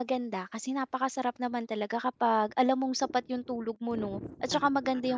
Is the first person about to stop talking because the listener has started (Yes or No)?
No